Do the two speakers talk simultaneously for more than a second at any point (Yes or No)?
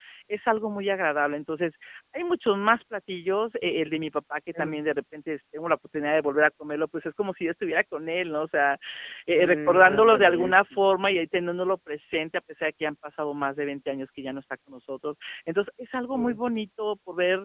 Yes